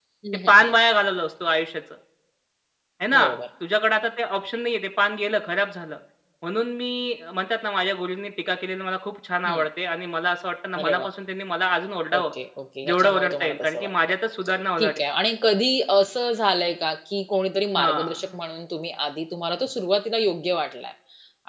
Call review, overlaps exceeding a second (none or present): present